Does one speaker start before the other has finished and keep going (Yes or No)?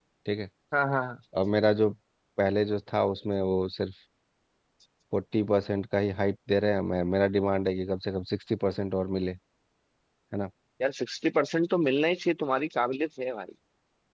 No